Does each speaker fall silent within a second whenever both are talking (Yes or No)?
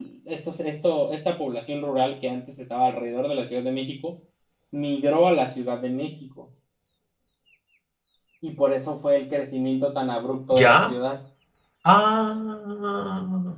Yes